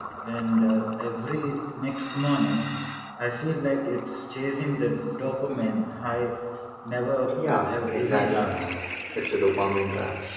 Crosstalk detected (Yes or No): Yes